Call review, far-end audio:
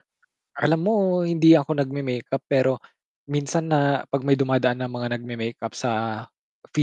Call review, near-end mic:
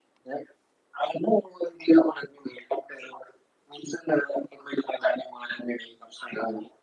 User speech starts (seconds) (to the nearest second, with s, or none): none